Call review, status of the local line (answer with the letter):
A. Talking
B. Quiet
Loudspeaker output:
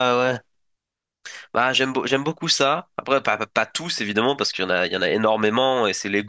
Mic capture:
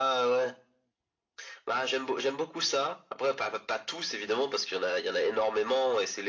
B